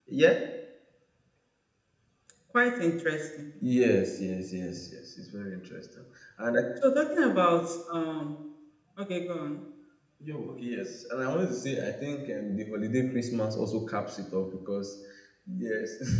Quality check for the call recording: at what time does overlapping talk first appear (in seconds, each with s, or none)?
none